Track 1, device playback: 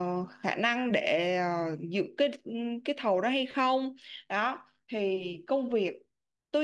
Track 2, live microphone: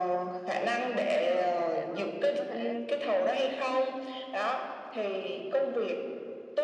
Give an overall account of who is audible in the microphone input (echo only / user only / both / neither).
both